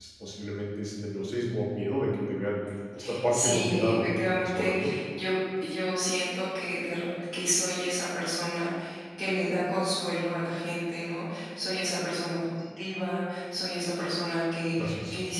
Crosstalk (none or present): present